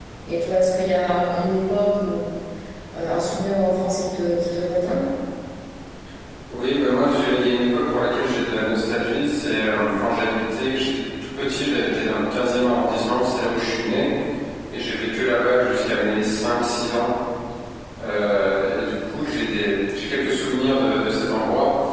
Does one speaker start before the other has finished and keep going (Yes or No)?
No